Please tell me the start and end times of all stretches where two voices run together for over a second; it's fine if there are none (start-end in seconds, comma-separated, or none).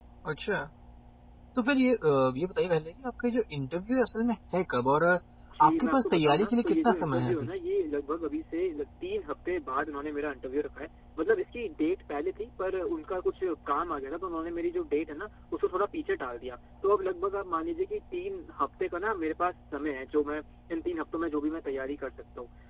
5.7-7.5